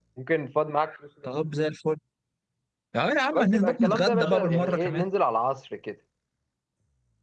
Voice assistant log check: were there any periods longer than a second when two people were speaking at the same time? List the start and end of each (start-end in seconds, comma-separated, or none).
3.3-5.0